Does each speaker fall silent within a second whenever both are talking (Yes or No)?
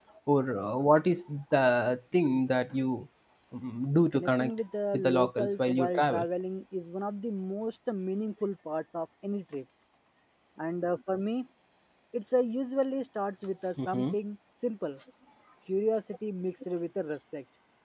No